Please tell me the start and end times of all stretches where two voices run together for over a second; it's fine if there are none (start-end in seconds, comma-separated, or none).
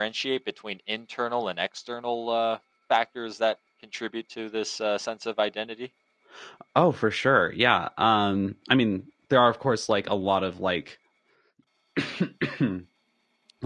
none